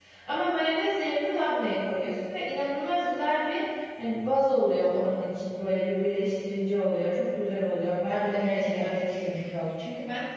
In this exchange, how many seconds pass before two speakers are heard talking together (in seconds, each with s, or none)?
8.1 s